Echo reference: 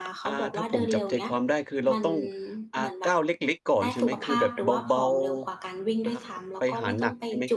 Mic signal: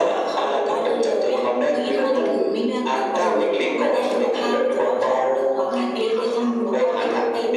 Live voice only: เฮ้ย ทำไมถึงไม่เลือกแบบเดินหรือว่าวิ่งไปเลย แบบนี้มันจะโอเคเหรอ? เราก็เลยไปหาข้อมูลมาค่ะ

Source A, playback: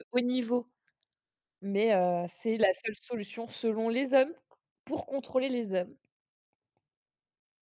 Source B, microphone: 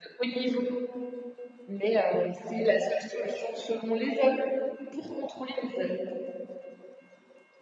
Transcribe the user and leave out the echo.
none

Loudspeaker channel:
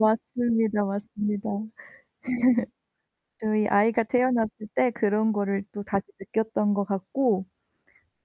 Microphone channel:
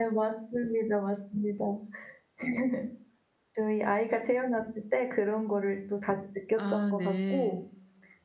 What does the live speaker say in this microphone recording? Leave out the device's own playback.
아 네.

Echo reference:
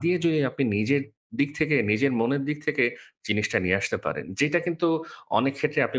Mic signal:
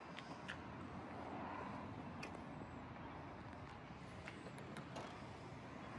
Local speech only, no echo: none

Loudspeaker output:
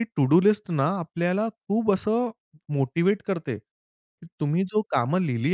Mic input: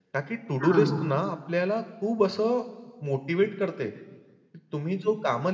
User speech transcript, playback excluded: हां.

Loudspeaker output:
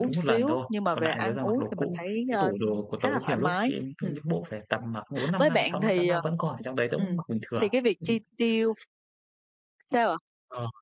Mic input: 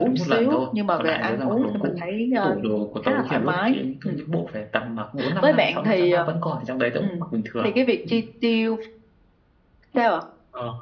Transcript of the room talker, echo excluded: Ừm.

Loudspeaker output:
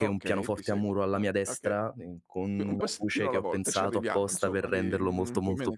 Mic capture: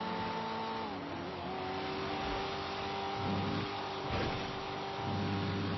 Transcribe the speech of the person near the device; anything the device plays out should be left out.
none

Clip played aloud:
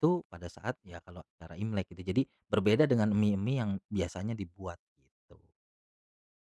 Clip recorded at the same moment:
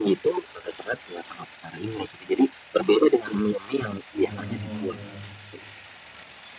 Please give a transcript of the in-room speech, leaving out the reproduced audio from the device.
Panjang umur, iya.

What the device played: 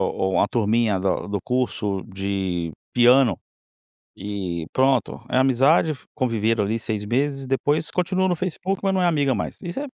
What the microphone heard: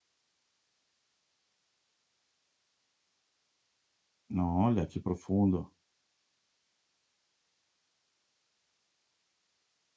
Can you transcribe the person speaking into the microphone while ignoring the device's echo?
Olha, que profundo.

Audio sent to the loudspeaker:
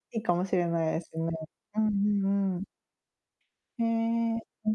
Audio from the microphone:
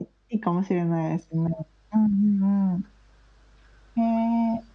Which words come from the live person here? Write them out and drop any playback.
none

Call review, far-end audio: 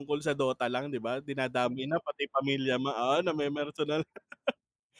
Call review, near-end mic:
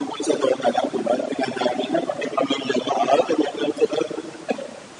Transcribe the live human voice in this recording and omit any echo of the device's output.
none

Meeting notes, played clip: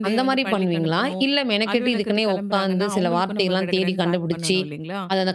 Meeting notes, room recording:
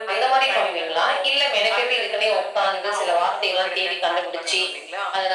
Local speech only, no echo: none

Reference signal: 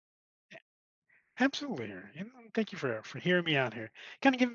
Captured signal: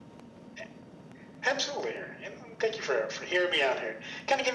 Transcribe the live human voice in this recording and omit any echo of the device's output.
none

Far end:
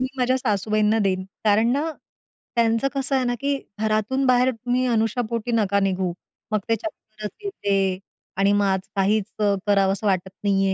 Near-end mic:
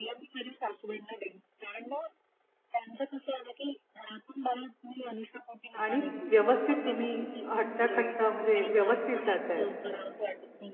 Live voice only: आणि व्यवस्थित तुम्ही हट्टाकट्टा म्हणजे व्यवस्थित जात आहेत.

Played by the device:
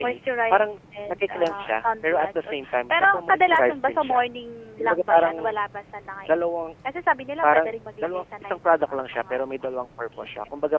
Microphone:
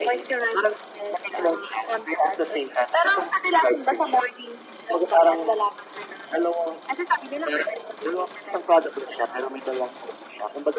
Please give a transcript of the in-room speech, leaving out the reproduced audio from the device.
none

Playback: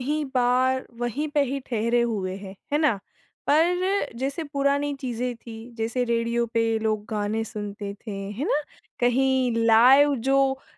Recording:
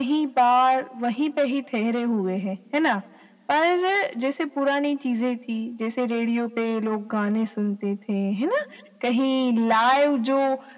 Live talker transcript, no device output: none

